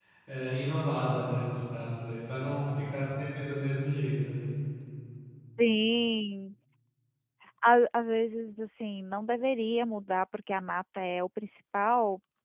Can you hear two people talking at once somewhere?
No

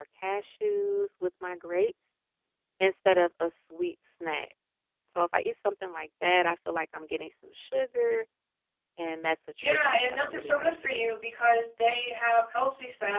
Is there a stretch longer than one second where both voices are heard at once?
Yes, from 9.6 s

